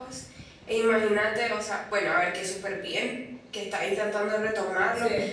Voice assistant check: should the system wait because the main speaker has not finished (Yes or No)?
Yes